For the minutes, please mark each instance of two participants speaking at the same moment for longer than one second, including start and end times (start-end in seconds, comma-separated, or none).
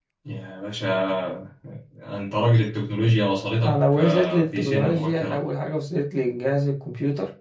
3.6-5.4